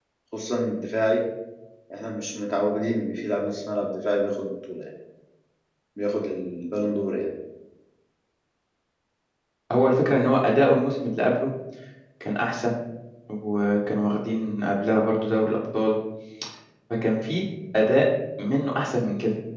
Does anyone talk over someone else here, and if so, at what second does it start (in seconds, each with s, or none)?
none